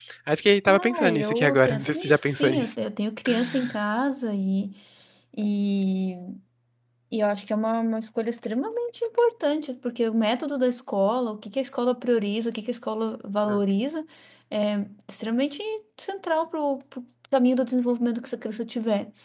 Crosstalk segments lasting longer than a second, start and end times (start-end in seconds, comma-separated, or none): 0.7-2.7